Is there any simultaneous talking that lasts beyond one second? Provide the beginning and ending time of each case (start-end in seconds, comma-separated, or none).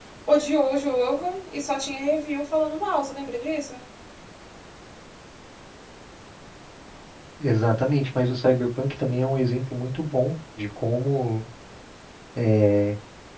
none